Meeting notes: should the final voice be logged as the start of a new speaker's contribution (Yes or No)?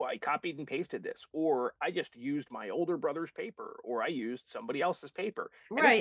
Yes